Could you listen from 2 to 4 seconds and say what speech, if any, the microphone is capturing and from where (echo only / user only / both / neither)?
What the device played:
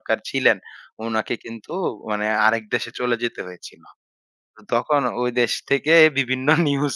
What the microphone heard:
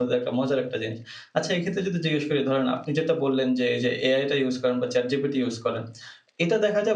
user only